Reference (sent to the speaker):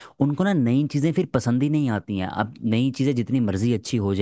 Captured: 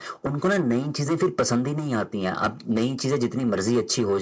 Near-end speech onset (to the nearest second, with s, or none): none